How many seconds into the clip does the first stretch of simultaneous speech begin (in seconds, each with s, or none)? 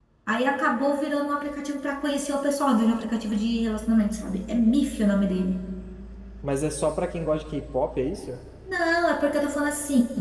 none